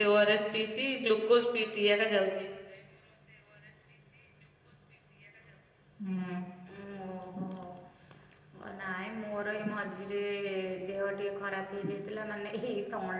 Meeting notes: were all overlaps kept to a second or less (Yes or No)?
Yes